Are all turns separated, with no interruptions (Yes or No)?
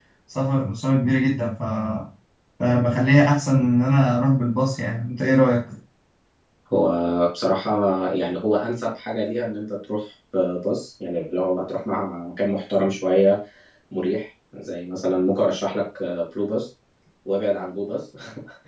Yes